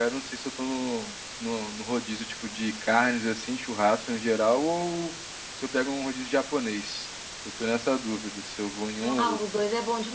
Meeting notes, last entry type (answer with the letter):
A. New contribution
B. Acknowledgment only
A